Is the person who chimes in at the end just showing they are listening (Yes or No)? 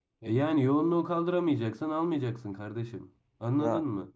No